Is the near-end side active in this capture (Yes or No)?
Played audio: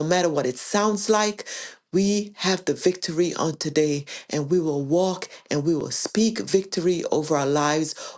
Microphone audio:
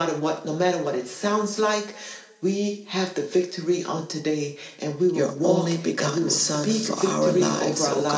Yes